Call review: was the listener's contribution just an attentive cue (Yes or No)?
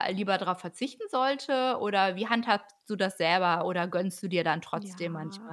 No